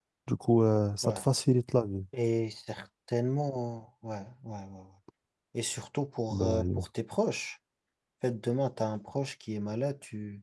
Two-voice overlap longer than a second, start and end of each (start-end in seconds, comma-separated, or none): none